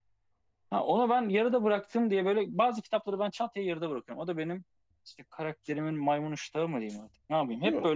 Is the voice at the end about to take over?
No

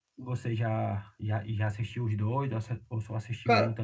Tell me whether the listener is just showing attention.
No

